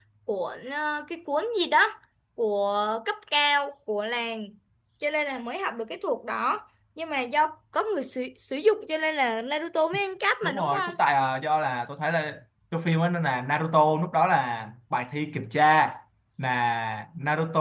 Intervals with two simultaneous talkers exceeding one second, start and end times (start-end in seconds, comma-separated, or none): none